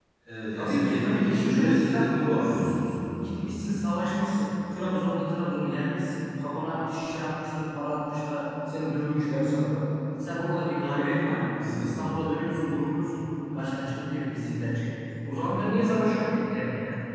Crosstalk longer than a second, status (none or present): present